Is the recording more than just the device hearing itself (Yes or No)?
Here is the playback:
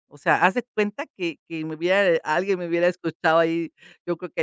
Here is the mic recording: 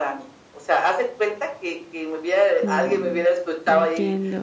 Yes